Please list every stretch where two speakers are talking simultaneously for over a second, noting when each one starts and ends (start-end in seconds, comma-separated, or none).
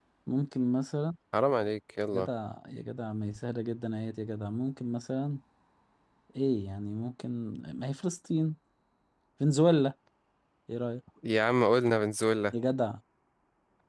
none